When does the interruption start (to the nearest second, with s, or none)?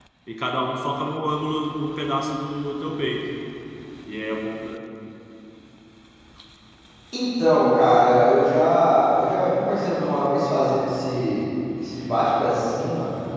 none